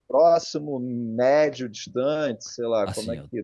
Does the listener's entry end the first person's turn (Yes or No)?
Yes